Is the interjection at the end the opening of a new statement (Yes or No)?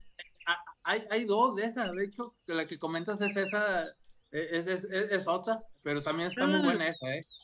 No